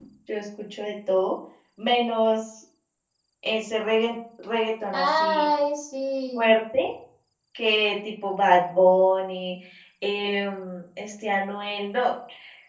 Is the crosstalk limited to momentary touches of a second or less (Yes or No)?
Yes